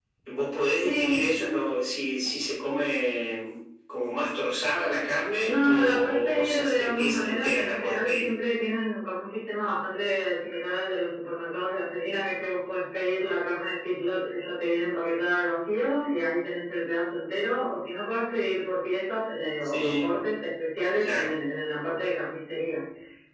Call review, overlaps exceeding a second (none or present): present